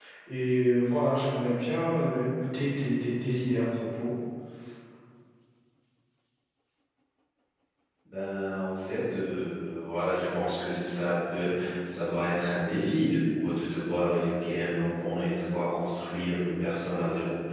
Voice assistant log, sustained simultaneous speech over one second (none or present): none